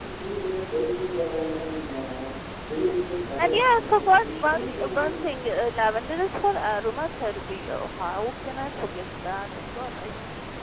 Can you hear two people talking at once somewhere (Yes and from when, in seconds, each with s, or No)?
Yes, from 3.4 s